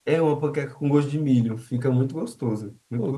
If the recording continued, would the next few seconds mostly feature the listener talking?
Yes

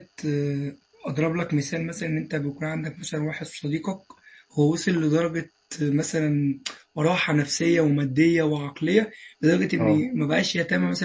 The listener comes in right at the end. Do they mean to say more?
No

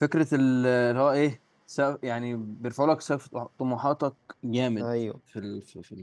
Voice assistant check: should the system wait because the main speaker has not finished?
Yes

